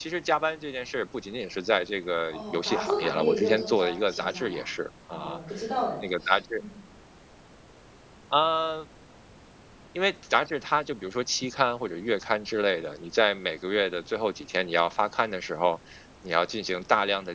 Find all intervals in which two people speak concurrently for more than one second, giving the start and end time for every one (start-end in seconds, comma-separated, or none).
2.3-4.6